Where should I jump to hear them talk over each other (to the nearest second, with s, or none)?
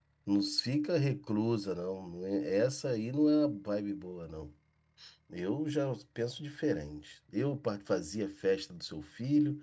none